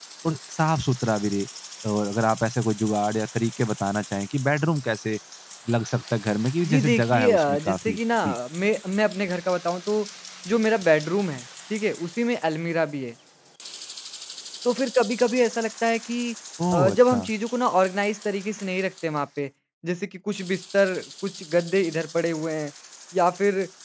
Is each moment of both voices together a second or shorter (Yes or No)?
No